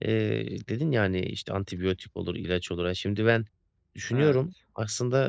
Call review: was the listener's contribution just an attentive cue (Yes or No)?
Yes